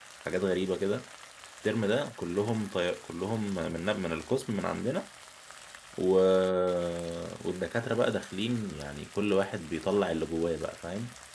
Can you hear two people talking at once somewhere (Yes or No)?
No